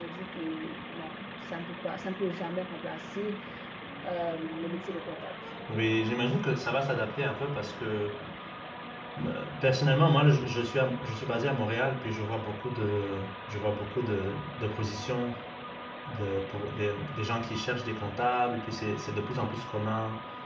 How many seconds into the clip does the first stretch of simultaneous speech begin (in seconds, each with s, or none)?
none